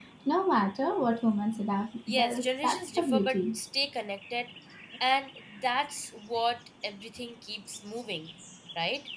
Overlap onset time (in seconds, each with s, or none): 2.1 s